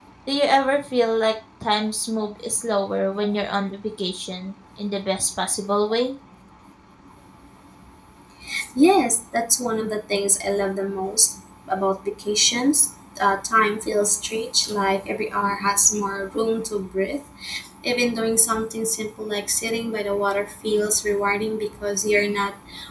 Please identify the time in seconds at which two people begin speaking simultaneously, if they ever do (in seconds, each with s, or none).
none